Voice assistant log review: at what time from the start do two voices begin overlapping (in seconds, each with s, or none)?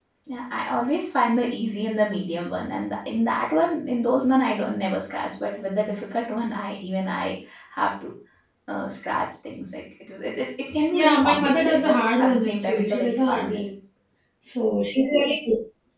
10.9 s